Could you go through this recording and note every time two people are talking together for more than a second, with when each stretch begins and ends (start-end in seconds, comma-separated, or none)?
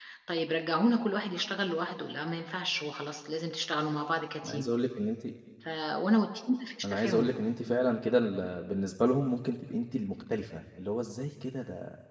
none